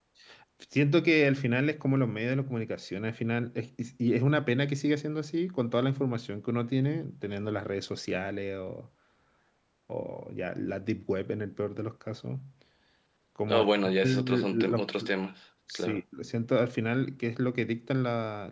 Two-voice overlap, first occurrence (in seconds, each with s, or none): 13.5 s